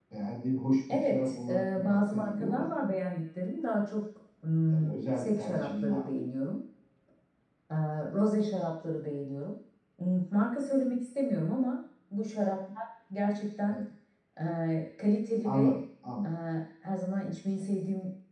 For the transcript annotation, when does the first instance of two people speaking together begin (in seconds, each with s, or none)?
0.9 s